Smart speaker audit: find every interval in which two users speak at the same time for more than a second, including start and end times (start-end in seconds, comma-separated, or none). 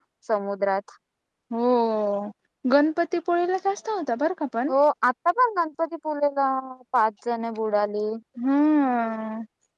none